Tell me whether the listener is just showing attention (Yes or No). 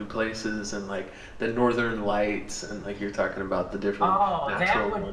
No